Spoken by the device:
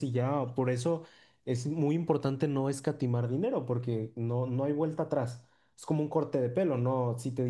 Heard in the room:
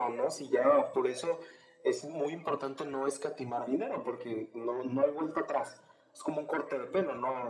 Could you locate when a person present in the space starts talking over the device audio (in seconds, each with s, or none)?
none